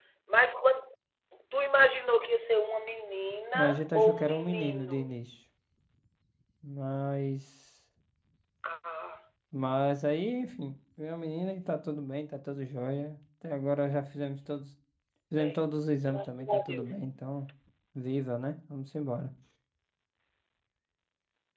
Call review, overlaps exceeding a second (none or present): present